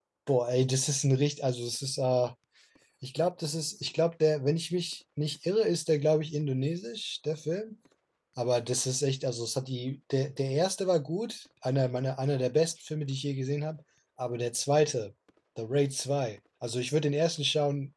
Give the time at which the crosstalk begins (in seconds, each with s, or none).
none